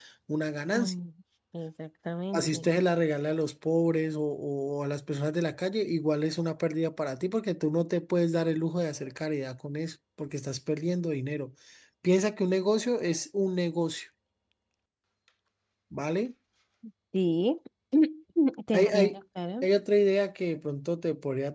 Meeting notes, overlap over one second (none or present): none